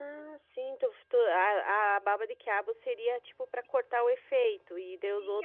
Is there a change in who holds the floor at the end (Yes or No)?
Yes